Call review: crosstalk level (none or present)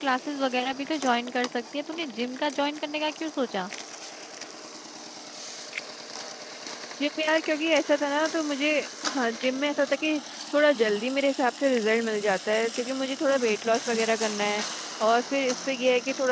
none